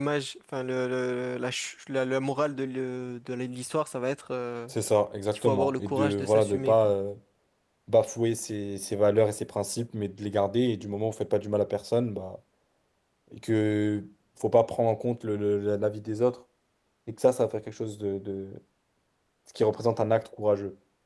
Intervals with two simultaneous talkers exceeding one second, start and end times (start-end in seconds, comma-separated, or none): 5.3-6.9